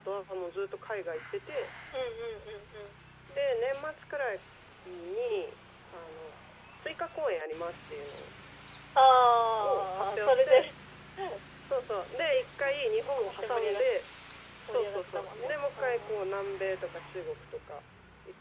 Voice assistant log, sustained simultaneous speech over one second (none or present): present